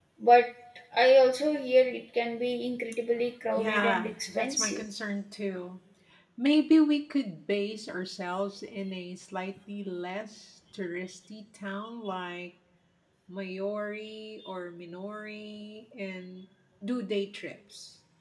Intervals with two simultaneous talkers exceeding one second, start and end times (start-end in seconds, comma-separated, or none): 3.5-4.8